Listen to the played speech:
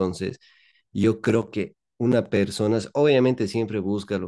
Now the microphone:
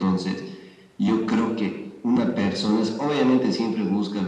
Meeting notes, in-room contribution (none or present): none